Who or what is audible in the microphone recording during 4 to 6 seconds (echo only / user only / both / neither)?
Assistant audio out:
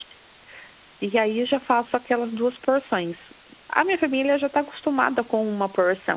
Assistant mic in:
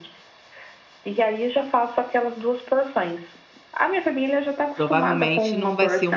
both